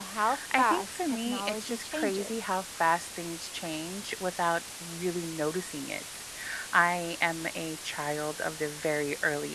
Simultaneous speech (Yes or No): Yes